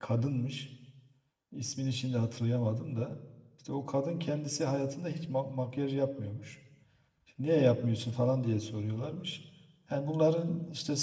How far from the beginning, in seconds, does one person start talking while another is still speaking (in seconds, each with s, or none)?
none